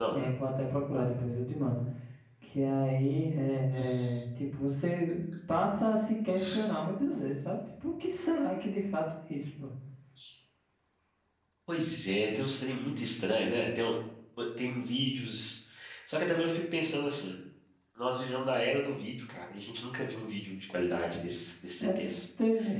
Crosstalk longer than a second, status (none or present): none